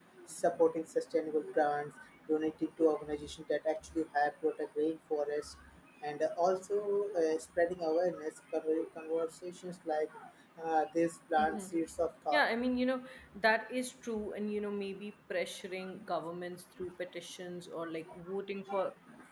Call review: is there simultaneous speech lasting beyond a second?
No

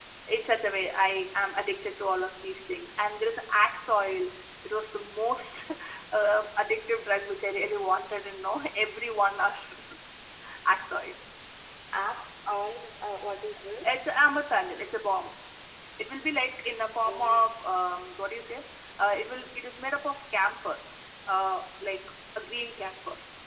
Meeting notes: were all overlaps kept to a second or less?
Yes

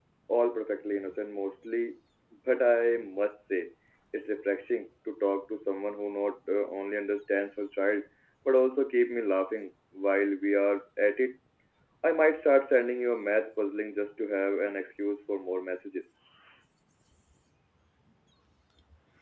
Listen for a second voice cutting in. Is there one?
No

